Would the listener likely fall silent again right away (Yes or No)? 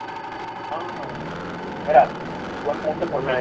No